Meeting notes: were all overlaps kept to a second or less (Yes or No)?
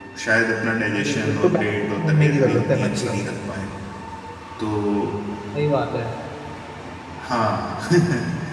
No